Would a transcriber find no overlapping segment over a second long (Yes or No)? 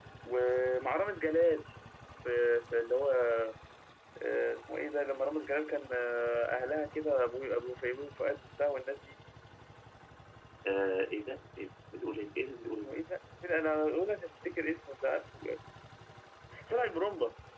Yes